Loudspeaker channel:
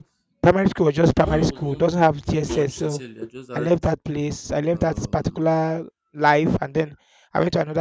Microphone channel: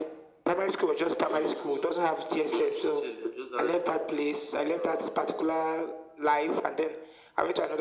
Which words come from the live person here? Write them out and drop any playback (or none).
none